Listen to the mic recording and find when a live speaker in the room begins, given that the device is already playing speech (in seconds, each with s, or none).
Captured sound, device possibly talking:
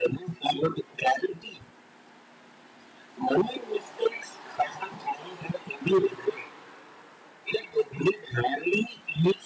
none